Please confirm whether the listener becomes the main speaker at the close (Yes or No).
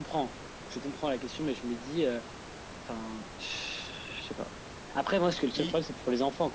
No